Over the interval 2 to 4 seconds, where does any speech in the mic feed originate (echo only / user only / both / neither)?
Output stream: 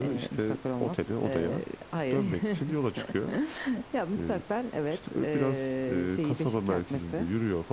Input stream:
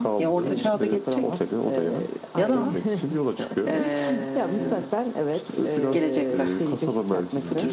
both